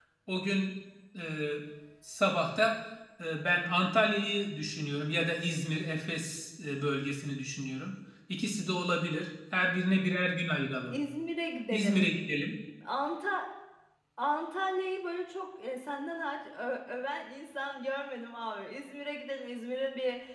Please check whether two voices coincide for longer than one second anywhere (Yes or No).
No